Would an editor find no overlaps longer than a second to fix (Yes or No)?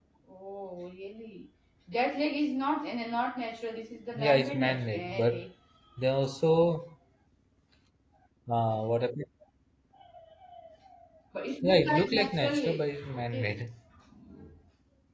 No